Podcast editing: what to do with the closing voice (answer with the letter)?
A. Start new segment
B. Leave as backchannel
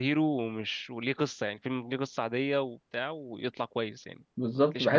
A